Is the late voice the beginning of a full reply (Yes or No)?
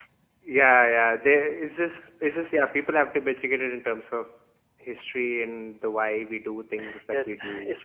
Yes